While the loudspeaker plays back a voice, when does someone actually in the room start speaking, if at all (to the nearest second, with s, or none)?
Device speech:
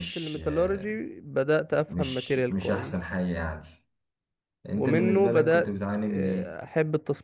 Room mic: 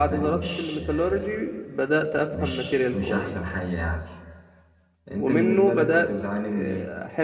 none